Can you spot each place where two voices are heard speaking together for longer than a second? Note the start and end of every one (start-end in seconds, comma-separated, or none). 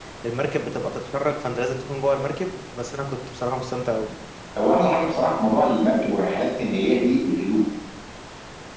none